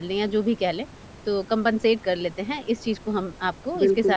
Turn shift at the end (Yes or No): Yes